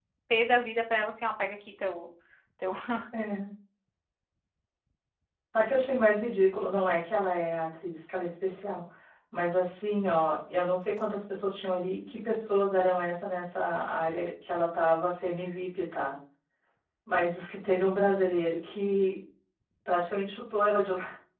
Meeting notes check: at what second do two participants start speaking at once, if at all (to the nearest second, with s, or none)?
none